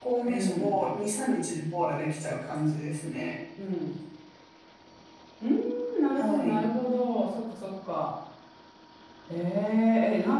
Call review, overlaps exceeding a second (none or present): none